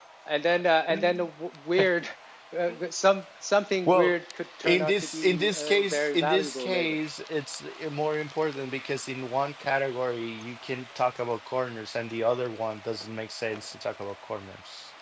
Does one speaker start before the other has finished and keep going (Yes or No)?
Yes